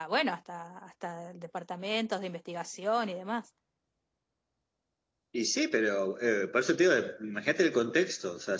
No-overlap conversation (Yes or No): Yes